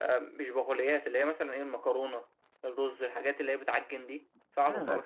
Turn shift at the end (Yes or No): Yes